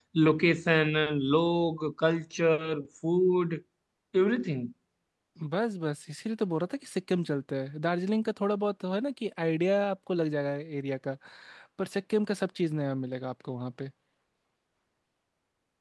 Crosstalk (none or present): none